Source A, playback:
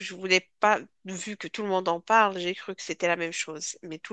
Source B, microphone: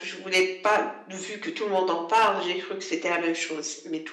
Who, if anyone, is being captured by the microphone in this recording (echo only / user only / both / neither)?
echo only